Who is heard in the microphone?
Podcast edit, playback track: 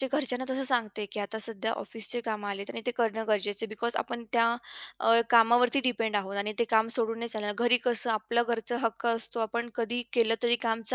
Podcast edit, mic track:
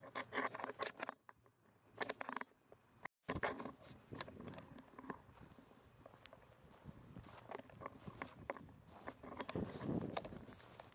neither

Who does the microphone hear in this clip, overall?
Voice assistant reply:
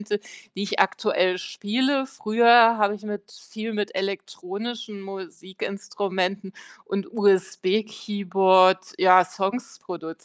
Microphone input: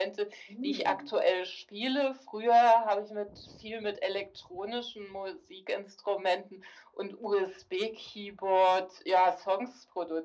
both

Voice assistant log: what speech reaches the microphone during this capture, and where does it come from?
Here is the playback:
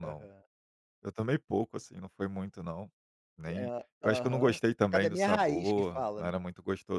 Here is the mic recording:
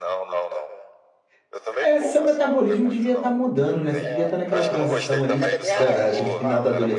both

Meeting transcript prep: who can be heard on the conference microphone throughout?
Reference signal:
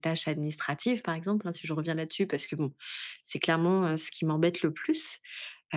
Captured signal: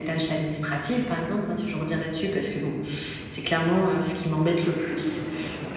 echo only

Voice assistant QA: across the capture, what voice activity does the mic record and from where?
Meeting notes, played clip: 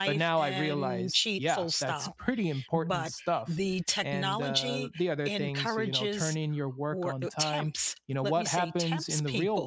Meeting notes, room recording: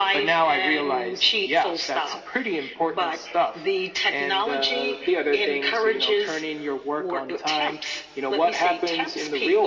echo only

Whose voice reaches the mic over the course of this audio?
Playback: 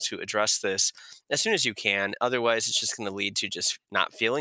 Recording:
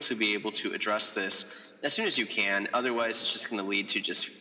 echo only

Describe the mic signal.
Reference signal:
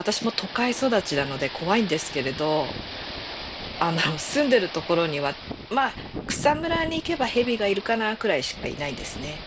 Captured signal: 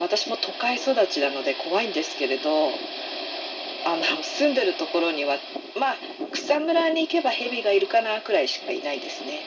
echo only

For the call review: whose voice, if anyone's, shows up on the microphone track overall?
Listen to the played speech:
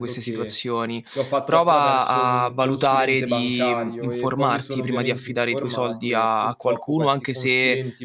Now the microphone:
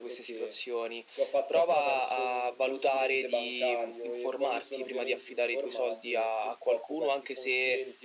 echo only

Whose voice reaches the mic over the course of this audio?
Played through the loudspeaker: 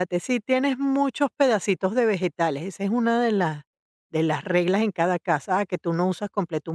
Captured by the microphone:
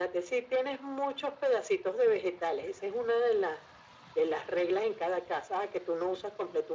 echo only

